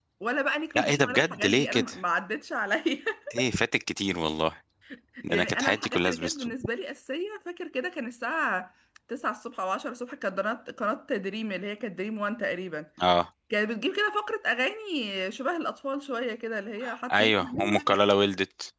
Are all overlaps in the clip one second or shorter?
No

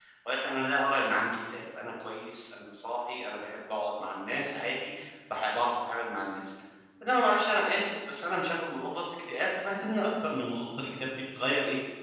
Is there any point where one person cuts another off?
No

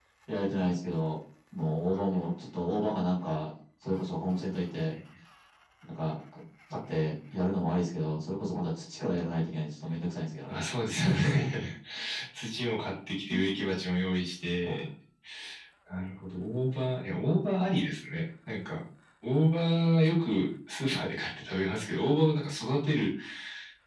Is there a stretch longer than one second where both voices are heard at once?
No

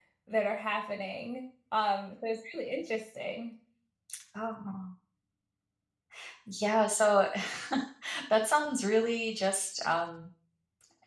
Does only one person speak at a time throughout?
Yes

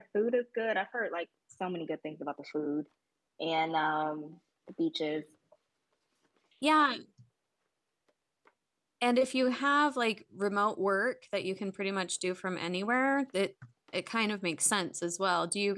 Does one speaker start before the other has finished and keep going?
No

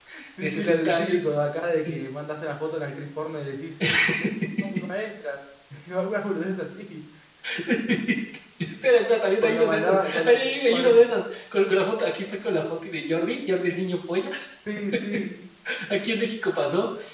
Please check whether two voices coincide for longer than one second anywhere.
Yes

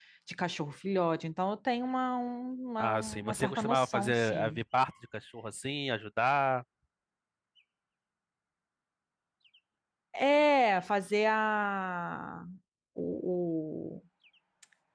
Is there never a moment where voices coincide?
No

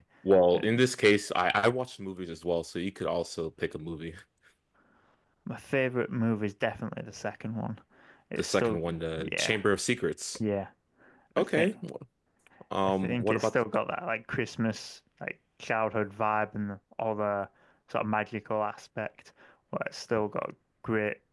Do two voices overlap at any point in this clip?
Yes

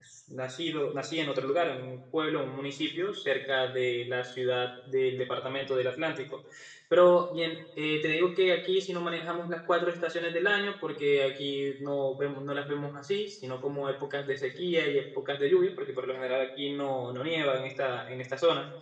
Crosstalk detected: No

